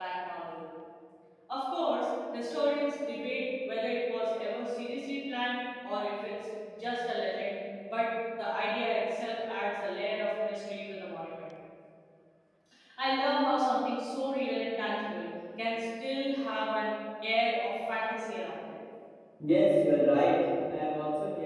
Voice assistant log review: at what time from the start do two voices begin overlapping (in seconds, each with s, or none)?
none